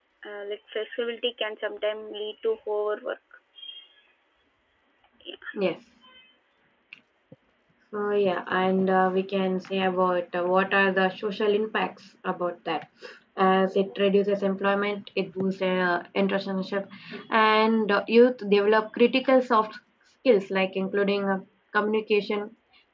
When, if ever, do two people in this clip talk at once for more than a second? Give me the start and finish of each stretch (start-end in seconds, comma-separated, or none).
none